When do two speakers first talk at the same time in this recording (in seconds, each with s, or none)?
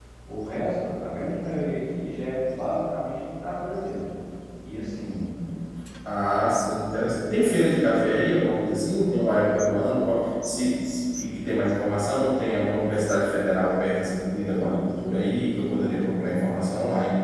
none